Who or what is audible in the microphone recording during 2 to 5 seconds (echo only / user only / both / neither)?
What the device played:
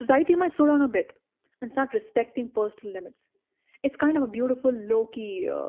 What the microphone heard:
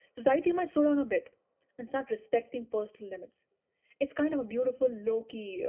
echo only